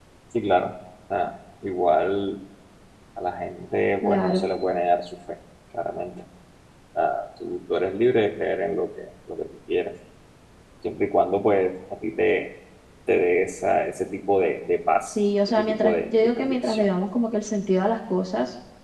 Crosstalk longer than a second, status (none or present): present